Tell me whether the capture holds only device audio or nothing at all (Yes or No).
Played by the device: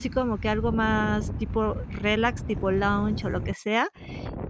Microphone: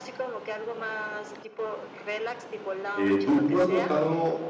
No